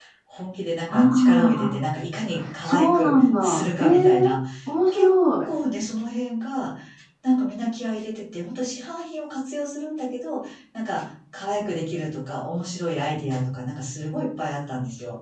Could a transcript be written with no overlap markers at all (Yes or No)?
No